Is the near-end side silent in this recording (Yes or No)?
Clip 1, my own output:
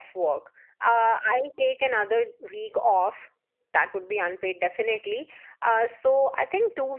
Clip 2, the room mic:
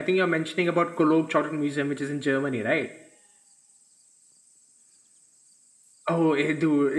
No